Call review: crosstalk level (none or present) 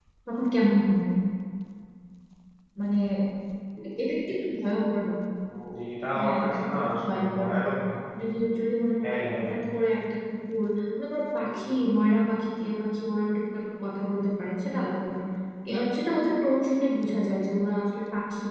present